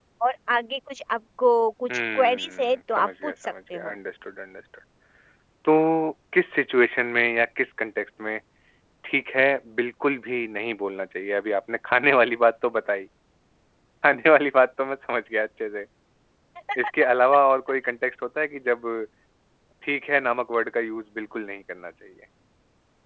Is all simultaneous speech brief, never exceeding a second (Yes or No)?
No